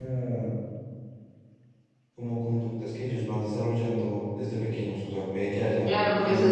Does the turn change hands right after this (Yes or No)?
Yes